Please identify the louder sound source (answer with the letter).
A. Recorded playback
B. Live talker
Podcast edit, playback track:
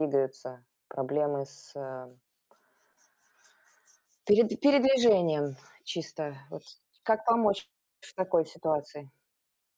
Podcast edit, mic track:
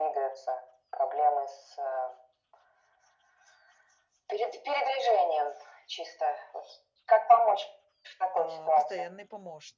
A